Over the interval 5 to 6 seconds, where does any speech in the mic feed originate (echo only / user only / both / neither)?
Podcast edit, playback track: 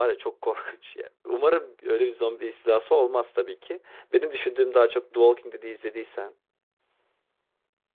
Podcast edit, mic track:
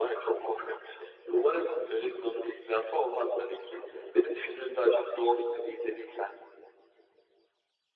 echo only